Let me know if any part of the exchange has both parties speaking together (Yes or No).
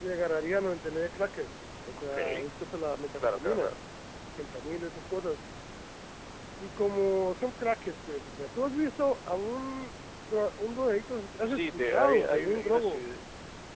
Yes